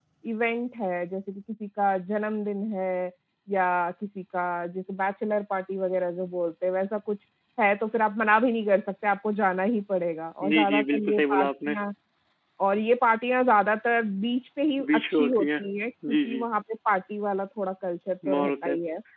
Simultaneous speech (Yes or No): Yes